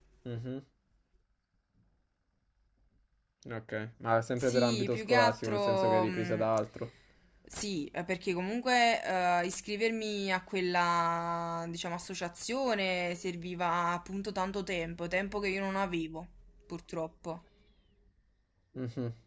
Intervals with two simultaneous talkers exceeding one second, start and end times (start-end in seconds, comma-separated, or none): 4.3-6.5